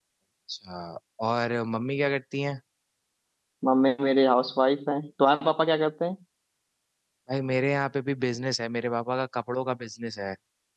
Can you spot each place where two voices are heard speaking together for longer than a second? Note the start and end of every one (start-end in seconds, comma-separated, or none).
none